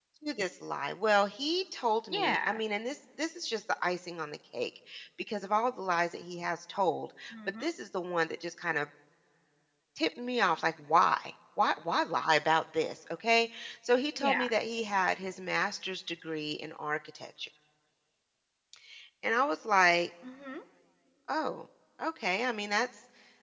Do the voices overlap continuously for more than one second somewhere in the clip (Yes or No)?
No